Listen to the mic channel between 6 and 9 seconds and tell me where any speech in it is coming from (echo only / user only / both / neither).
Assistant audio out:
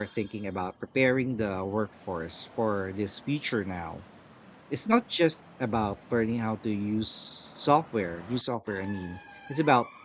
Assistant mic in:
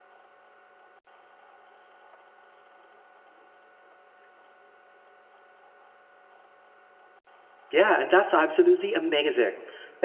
user only